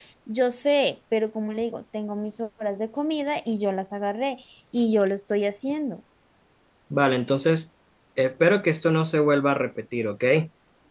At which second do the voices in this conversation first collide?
none

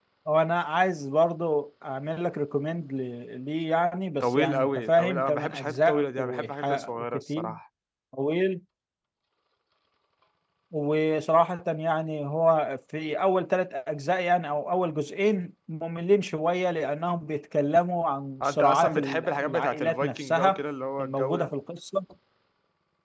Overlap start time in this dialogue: 4.2 s

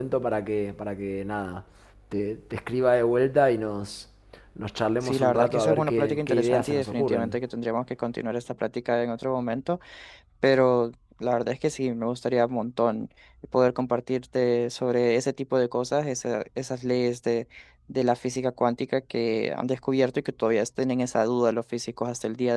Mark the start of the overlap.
5.0 s

